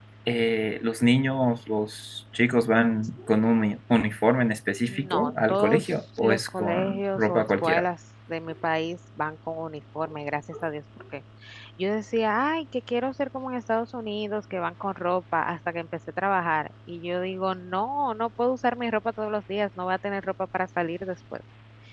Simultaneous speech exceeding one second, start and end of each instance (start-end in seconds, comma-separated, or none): 4.9-7.8